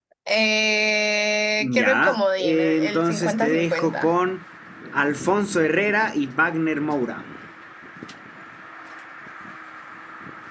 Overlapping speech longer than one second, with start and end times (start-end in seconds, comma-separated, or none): 1.8-4.1